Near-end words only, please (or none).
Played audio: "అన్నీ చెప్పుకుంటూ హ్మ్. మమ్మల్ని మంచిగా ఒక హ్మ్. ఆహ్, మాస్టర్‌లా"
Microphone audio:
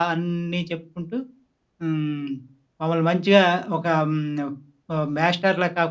none